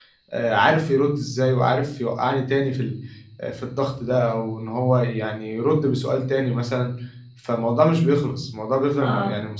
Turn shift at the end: Yes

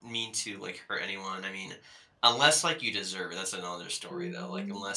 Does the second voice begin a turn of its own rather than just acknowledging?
Yes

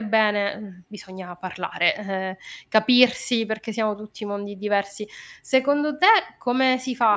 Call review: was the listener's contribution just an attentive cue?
Yes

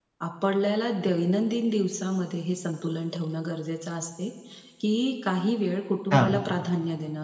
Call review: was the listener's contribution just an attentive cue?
Yes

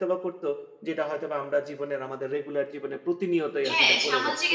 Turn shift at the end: Yes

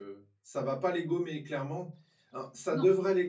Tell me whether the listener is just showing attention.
Yes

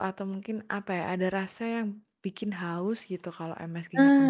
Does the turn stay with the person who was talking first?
No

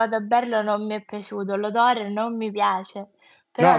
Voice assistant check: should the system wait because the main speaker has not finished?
No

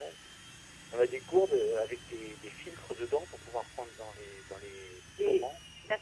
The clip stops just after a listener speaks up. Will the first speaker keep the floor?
No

